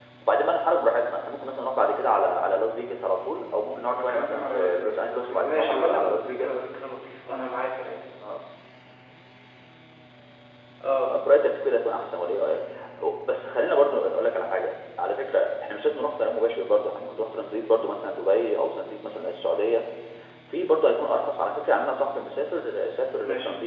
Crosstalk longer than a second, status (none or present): present